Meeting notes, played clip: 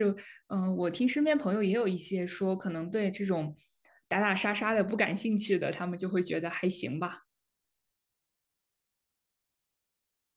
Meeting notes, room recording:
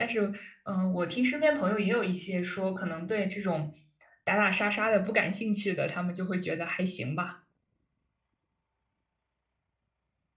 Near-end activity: none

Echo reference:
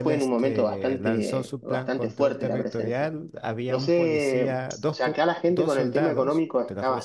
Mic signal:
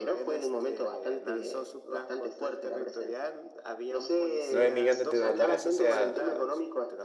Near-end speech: present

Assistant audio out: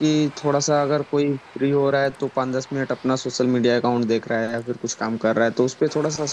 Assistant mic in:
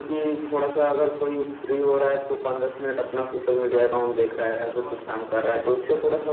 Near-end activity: present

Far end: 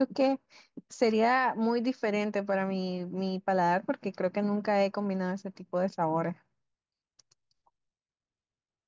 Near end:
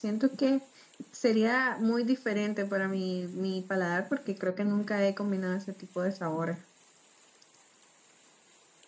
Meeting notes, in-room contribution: none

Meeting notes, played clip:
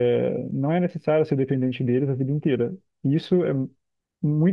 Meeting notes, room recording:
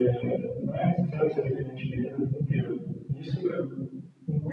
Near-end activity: none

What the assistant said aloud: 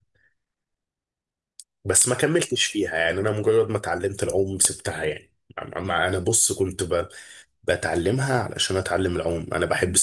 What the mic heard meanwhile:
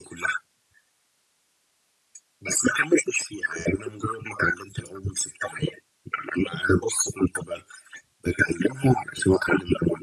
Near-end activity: none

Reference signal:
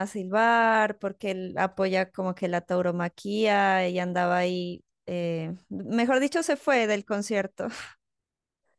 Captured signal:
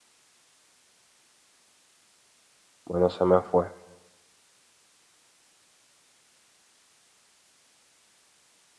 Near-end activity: present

